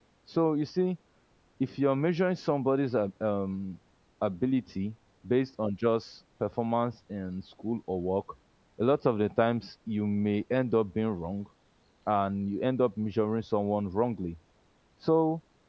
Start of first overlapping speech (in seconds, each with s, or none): none